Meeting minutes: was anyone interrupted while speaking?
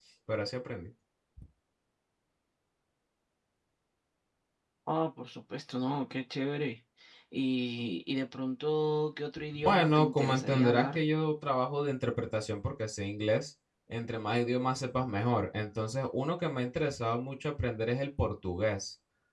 Yes, from 9.5 s

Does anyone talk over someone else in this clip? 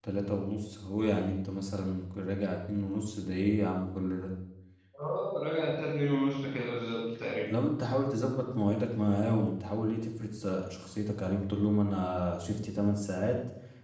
No

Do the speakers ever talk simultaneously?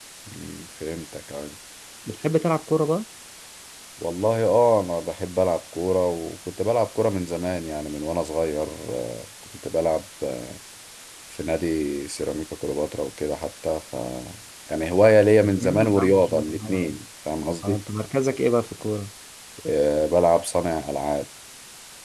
Yes, from 15.4 s

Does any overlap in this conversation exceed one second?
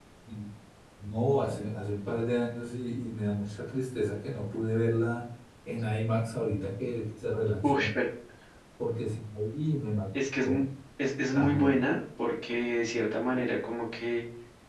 No

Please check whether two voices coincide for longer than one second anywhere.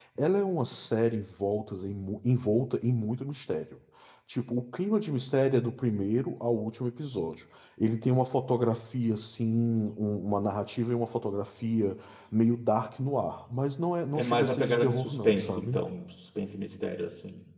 Yes, from 14.1 s

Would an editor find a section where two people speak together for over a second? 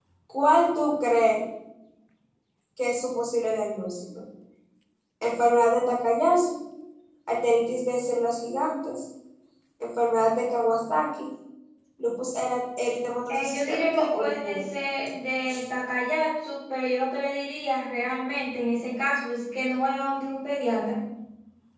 Yes, from 13.3 s

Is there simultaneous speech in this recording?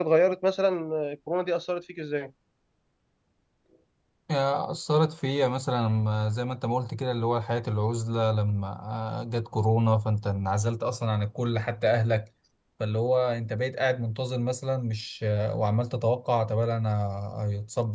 No

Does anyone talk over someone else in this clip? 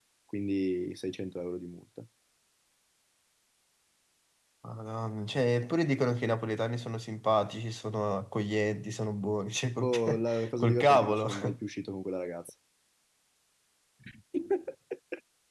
Yes, from 9.8 s

